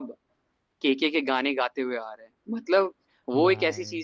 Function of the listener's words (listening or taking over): listening